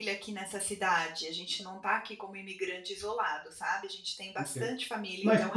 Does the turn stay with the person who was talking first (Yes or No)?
No